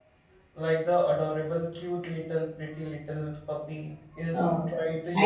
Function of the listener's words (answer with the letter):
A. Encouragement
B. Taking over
B